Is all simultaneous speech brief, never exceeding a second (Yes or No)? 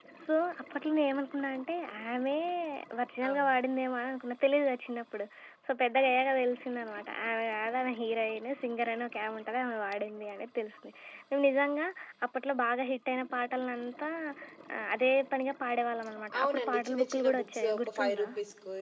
No